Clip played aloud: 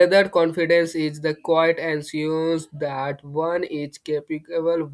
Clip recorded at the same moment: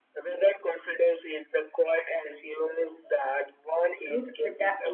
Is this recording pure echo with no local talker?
No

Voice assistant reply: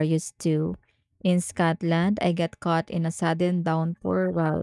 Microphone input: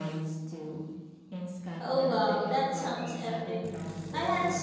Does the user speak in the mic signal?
Yes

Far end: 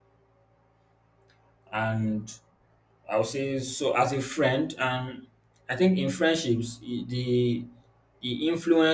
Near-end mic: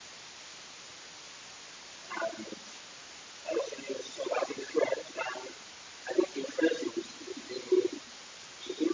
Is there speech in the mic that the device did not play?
No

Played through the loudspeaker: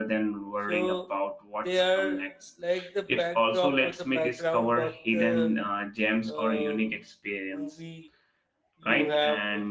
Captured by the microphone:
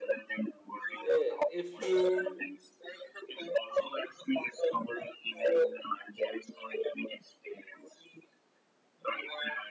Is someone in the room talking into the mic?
Yes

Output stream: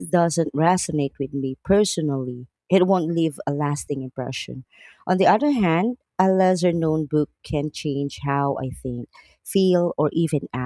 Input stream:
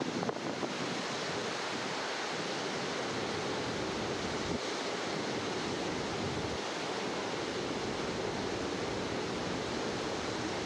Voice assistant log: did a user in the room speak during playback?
No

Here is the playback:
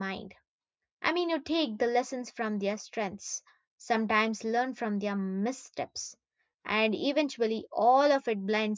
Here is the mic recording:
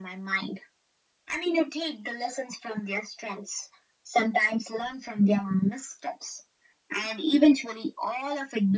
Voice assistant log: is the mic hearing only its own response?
Yes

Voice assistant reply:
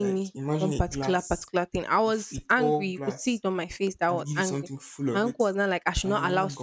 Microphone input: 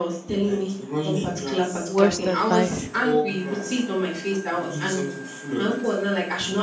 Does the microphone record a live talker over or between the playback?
Yes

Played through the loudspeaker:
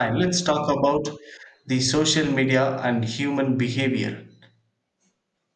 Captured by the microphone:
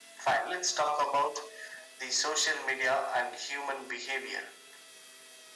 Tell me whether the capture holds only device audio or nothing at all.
Yes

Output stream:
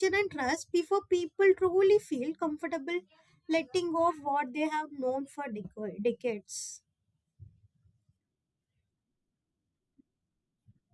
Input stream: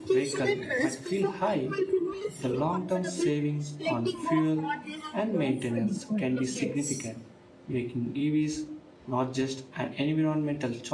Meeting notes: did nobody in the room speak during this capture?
No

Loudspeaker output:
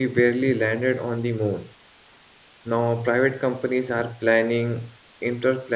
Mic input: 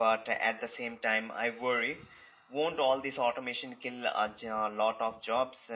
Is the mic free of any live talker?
No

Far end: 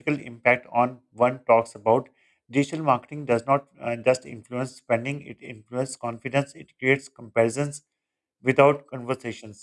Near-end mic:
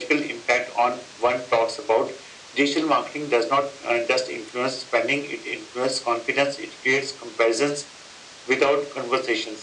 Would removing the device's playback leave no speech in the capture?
Yes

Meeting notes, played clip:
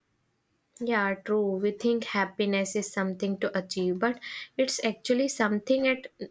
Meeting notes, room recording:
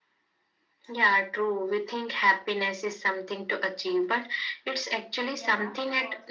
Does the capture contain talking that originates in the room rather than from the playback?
Yes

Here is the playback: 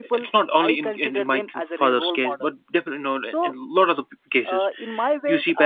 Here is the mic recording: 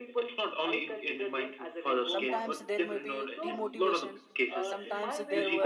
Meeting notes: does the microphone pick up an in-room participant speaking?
Yes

